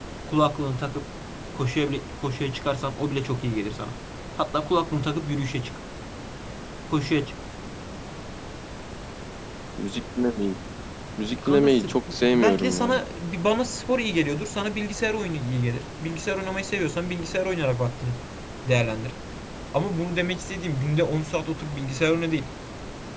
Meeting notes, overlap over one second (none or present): present